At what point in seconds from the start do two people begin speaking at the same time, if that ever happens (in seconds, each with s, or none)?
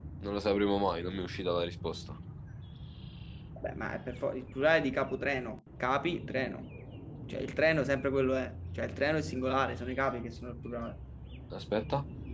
none